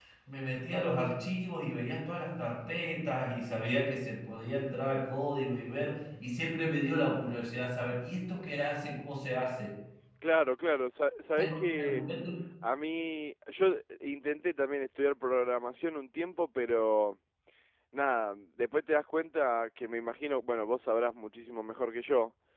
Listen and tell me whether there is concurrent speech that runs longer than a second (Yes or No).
No